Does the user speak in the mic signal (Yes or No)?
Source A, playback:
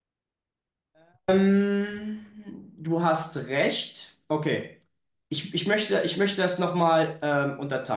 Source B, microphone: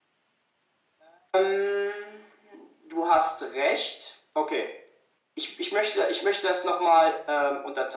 No